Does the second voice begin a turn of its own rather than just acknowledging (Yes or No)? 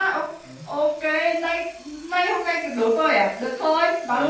Yes